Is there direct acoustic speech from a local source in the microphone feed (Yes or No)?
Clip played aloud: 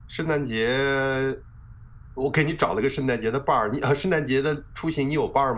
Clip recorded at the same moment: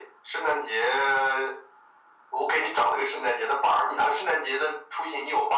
No